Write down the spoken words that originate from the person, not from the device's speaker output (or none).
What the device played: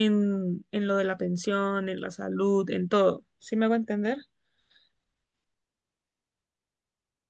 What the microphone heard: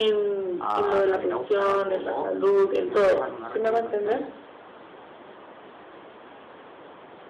a salir a buscar algo. O si me pides alguna recomendación,